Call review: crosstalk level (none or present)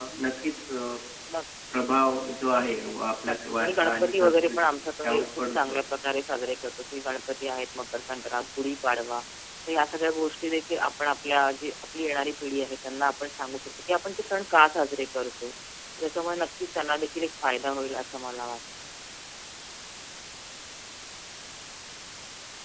present